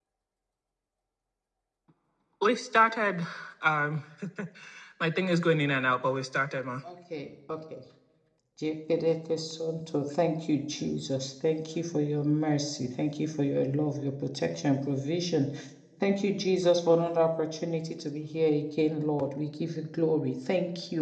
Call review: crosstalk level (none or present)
none